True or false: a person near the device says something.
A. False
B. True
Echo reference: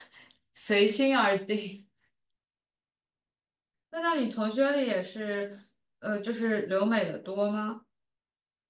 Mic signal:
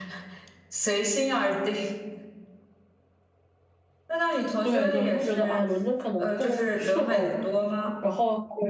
B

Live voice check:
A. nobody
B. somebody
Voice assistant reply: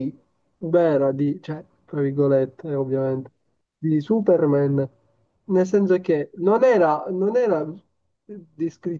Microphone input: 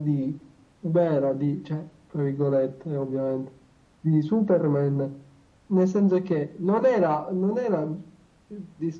A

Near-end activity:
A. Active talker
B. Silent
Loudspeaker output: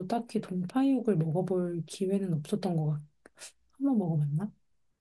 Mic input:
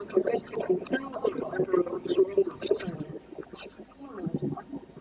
B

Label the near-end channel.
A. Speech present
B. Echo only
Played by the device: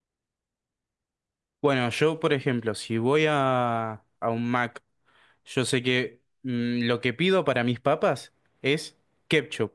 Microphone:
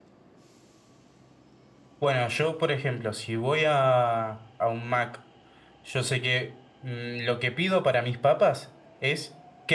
B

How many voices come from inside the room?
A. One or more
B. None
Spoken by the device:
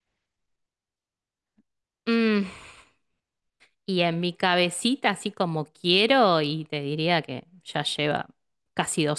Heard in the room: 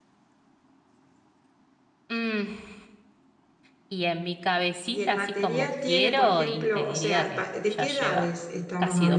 A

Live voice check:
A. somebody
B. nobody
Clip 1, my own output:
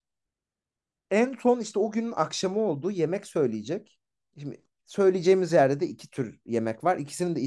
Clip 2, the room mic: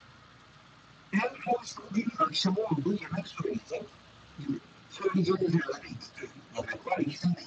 B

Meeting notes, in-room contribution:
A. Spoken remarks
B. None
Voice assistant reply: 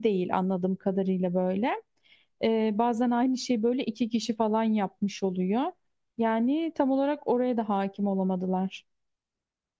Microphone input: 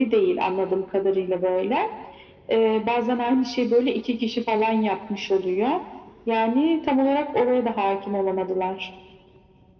B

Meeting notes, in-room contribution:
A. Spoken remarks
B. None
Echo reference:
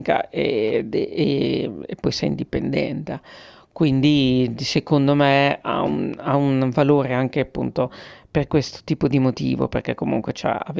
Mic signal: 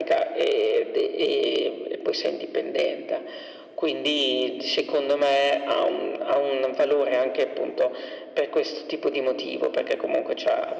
B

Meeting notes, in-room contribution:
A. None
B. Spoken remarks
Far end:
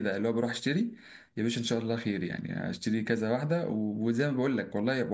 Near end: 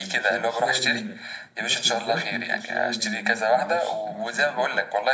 B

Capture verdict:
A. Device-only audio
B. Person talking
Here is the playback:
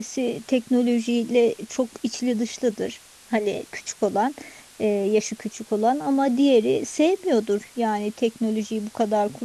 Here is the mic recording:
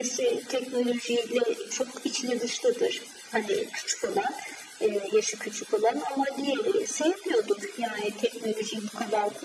A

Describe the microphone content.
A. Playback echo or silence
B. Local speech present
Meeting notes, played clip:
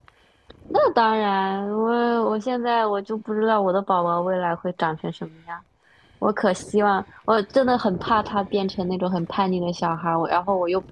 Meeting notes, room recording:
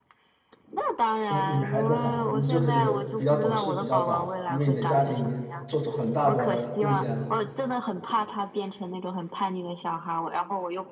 B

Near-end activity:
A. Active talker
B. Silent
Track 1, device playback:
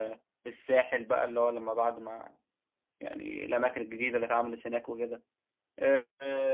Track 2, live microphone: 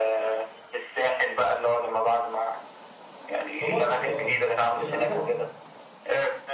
A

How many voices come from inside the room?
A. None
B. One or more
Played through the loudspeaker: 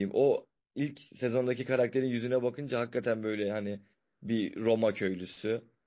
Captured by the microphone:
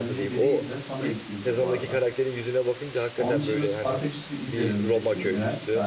B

